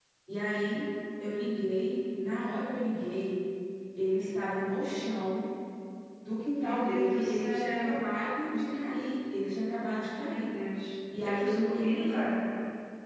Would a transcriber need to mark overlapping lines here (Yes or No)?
Yes